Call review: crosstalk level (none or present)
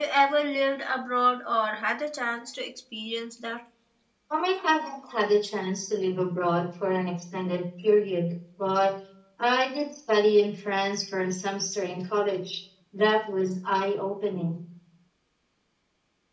none